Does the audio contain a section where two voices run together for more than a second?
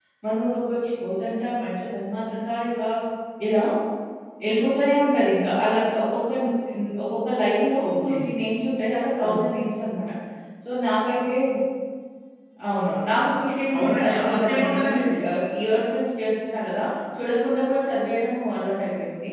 Yes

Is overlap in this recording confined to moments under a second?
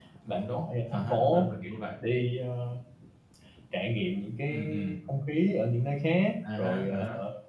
No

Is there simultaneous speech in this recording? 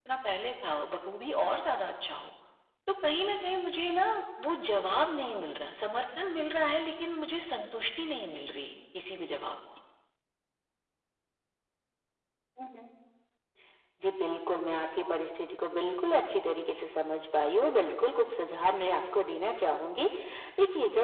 No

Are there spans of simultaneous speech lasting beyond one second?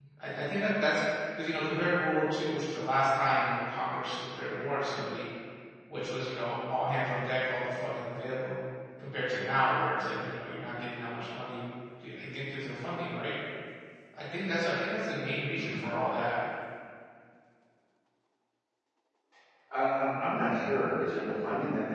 No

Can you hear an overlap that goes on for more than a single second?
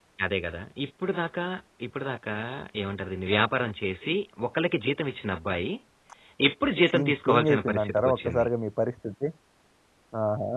Yes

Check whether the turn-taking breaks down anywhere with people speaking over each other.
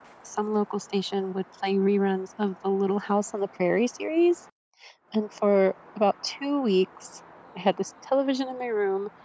No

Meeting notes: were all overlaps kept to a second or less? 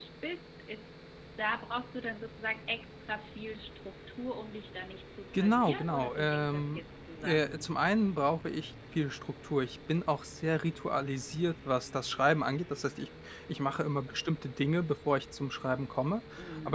No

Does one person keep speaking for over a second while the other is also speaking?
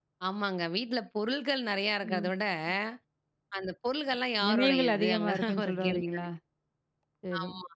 Yes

